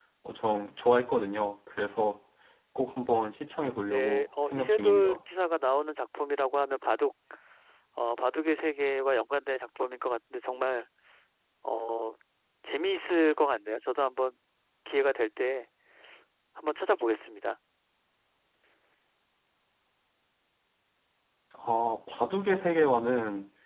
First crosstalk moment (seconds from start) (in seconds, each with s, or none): 3.9 s